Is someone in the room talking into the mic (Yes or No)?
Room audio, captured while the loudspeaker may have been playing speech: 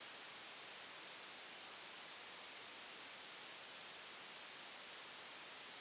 No